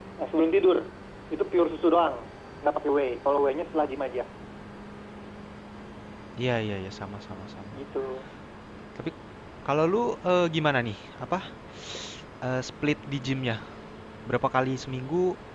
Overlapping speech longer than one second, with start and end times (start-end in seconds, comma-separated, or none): none